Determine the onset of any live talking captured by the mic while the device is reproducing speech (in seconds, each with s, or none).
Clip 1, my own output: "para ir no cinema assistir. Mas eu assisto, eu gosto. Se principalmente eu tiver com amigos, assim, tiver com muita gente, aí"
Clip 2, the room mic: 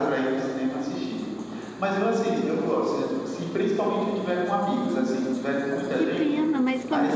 5.9 s